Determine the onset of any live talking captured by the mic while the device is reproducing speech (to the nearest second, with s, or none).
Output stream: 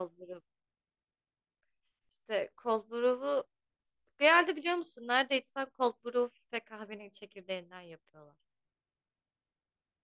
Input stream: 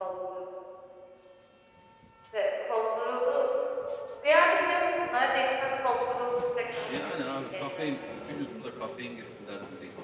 7 s